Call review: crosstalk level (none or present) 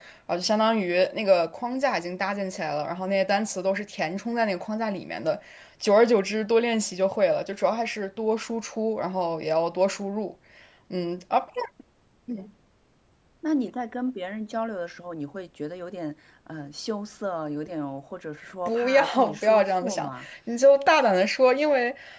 present